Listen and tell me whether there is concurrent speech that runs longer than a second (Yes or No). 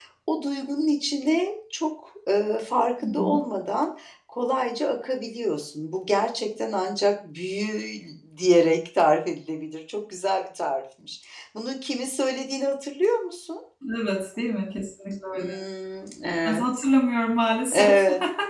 No